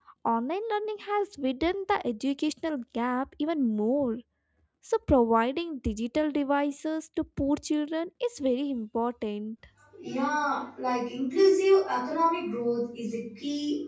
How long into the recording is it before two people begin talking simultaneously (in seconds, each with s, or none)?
none